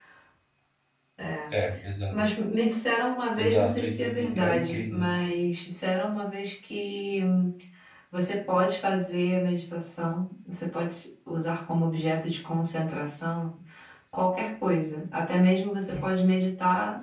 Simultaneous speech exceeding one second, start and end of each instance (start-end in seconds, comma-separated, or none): 3.4-5.1